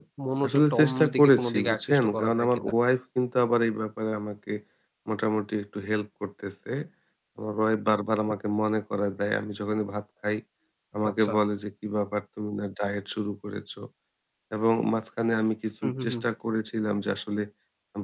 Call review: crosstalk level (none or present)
present